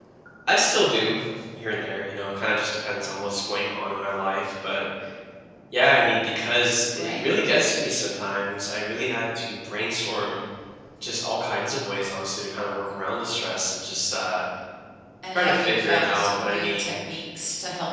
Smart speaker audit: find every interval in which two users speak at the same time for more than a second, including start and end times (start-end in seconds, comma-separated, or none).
15.3-16.9